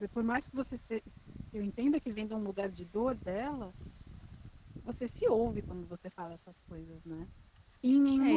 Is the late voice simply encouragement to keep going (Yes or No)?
No